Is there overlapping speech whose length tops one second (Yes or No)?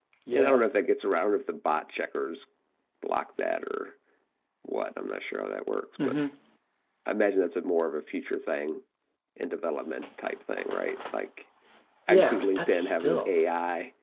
Yes